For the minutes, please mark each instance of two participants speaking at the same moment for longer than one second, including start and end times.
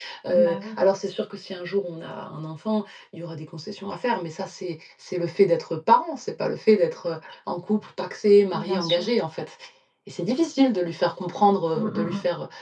none

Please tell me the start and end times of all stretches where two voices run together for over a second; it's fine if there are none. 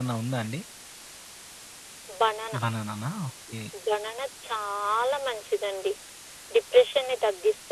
none

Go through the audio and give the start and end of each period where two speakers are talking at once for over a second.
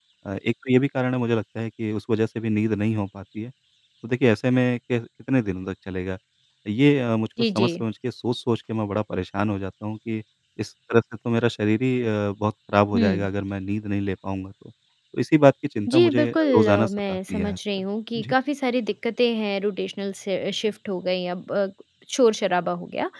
15.9-17.6

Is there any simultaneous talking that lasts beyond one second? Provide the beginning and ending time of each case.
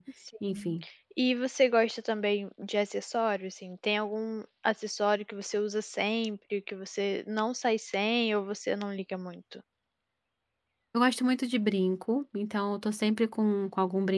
none

